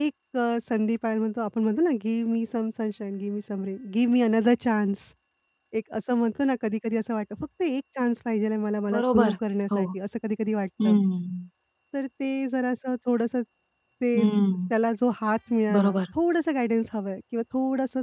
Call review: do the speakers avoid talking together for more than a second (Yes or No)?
Yes